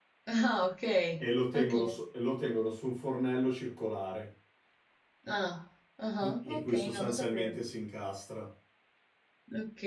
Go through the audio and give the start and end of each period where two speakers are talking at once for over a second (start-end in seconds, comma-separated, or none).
6.2-7.6